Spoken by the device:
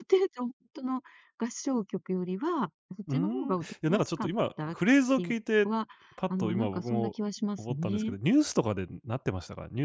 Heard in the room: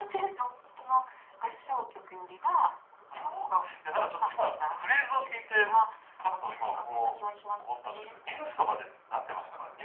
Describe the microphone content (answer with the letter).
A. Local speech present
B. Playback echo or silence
B